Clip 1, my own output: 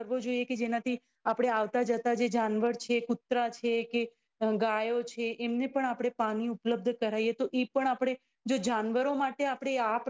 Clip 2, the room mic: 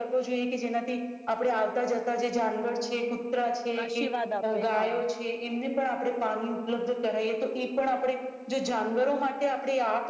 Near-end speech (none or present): present